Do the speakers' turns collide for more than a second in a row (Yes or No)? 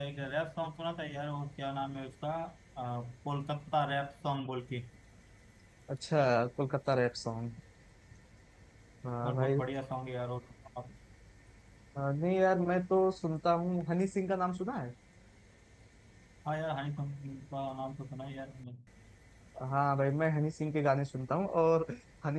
No